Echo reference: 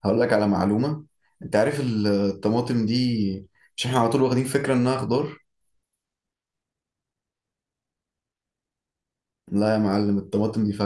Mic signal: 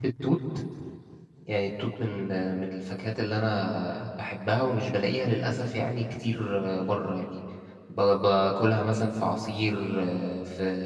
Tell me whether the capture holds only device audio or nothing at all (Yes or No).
No